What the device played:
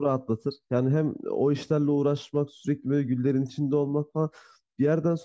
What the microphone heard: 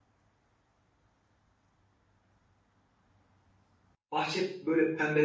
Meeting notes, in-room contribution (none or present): present